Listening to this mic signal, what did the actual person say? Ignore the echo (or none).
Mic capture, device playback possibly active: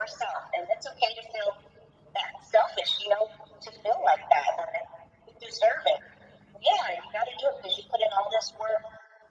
none